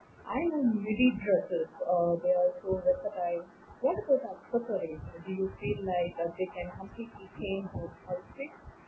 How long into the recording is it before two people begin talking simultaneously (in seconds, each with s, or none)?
none